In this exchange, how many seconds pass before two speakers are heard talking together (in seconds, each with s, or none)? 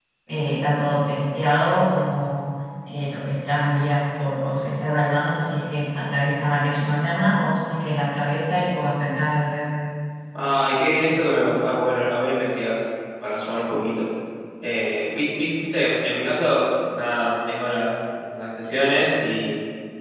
none